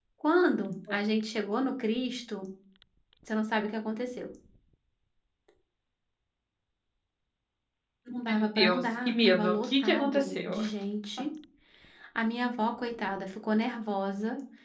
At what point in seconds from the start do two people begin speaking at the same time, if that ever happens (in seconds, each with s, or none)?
8.3 s